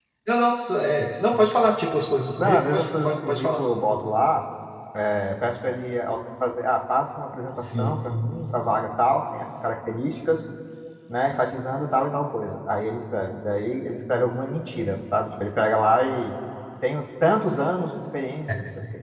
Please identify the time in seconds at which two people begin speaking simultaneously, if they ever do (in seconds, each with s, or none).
2.4 s